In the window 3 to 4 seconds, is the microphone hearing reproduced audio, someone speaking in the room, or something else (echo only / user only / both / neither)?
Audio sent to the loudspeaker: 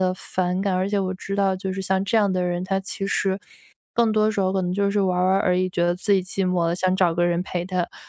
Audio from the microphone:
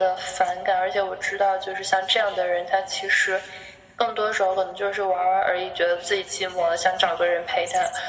echo only